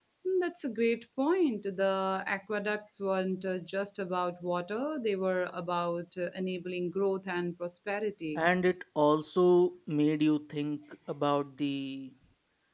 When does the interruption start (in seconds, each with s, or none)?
none